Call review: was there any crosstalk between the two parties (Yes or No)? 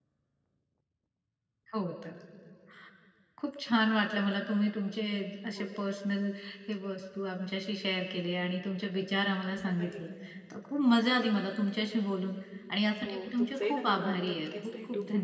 Yes